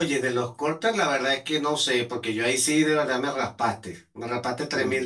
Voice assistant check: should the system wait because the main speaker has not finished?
Yes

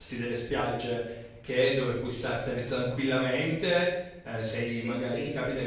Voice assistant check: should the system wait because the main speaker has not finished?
Yes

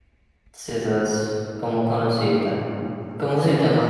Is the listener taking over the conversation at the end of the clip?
No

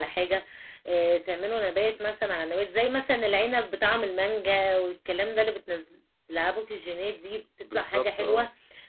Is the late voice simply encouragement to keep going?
Yes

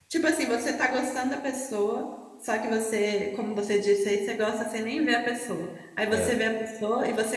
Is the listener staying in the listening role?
Yes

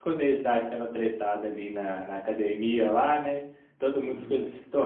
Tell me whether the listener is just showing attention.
Yes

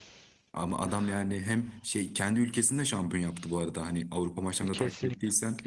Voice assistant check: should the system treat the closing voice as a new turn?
Yes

